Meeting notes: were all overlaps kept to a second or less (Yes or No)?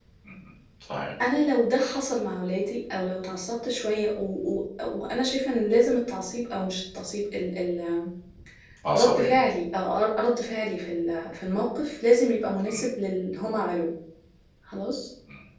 Yes